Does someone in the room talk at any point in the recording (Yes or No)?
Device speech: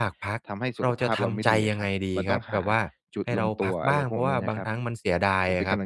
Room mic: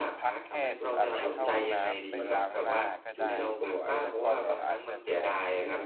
Yes